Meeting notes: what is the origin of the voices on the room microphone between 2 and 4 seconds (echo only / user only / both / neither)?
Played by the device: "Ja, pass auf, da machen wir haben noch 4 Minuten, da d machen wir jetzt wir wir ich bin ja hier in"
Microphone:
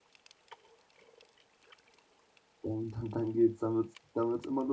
user only